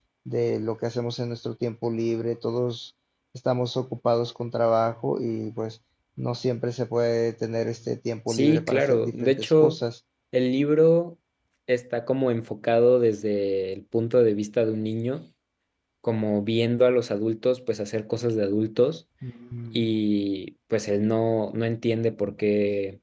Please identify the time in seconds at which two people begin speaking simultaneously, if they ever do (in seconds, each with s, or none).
8.3 s